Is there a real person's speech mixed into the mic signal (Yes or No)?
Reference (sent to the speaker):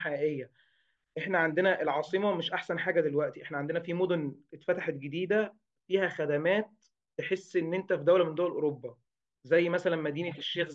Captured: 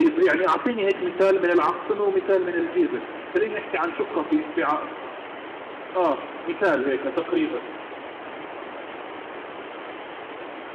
Yes